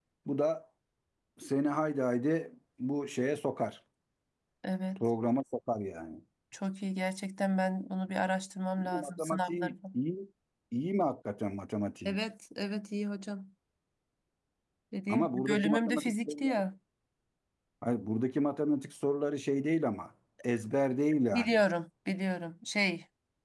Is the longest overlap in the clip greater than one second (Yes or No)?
Yes